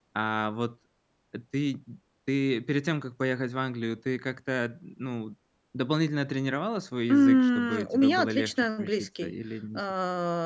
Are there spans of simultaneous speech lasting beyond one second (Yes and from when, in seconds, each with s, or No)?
Yes, from 7.1 s